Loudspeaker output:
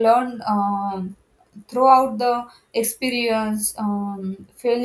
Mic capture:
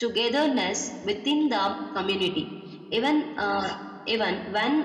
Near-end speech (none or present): present